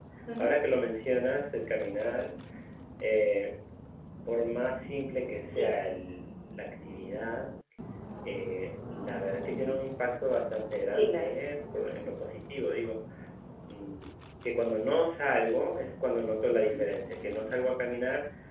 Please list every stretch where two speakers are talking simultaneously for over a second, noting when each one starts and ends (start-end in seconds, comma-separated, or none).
none